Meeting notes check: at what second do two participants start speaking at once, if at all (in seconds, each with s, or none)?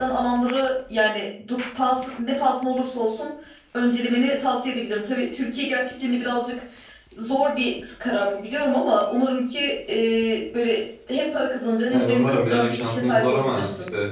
11.9 s